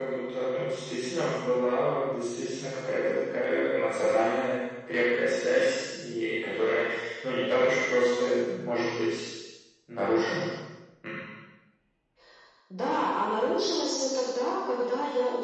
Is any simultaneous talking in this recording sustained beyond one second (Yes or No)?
No